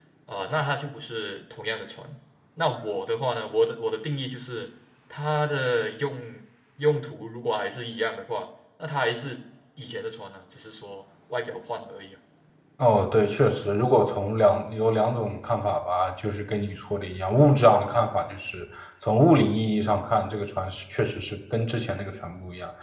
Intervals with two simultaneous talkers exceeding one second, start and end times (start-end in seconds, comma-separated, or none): none